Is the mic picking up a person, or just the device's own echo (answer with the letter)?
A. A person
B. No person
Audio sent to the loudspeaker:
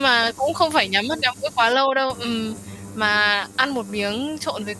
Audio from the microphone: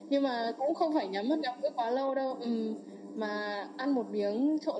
B